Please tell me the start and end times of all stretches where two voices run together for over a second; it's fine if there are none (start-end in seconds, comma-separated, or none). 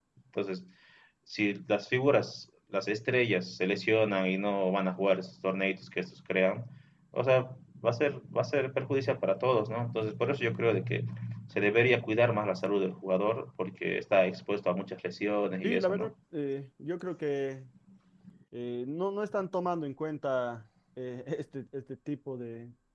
none